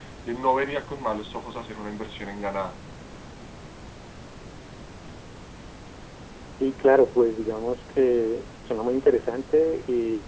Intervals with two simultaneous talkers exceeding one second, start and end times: none

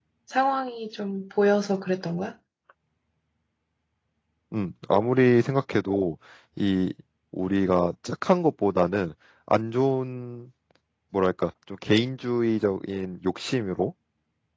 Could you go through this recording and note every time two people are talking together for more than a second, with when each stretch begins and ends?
none

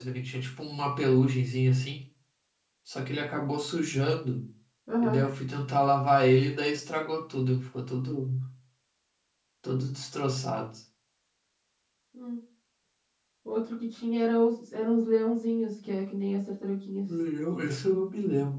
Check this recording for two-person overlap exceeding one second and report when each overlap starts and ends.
none

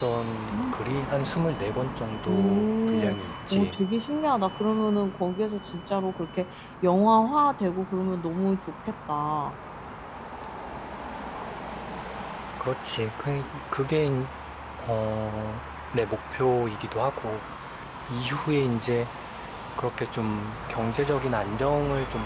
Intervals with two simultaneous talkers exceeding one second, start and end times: 2.3-3.8

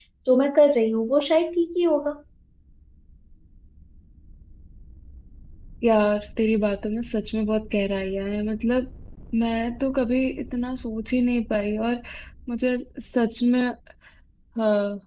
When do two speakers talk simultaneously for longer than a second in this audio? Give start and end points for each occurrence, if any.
none

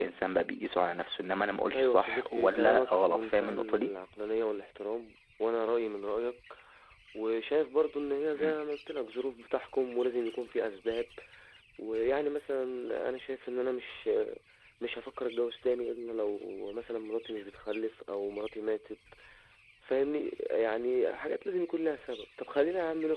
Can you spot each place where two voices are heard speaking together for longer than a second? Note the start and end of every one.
1.7-3.9

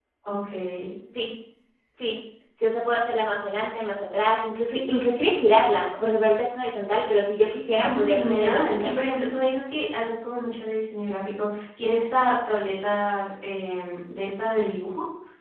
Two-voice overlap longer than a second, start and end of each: 7.7-8.9

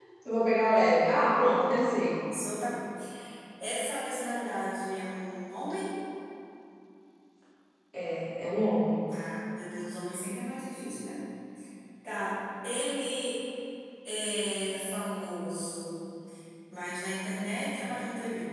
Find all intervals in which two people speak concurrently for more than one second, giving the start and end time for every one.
none

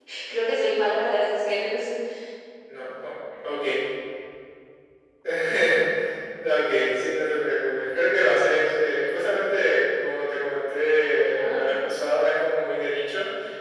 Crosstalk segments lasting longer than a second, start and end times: none

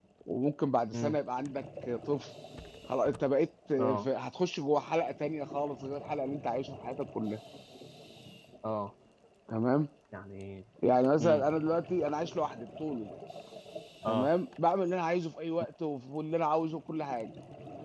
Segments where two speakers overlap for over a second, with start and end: none

